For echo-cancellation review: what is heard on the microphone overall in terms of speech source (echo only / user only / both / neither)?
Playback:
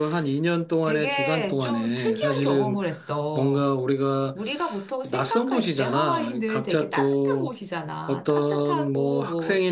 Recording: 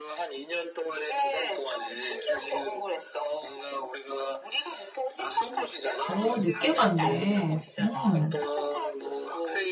both